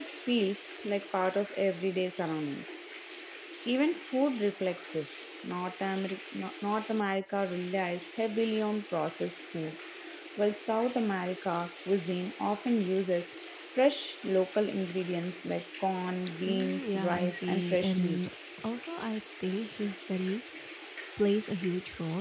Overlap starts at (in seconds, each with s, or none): 16.5 s